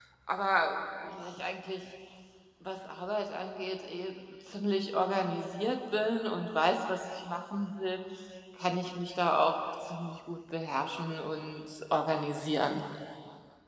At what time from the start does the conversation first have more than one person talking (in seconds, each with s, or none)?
none